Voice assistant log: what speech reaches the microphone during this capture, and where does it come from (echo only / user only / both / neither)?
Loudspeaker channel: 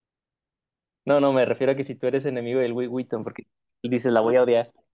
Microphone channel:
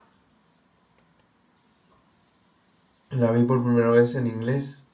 user only